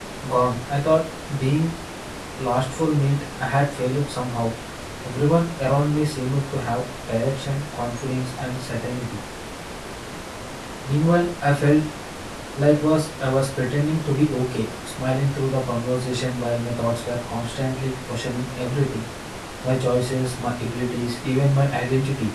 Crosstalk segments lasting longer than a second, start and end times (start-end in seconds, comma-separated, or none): none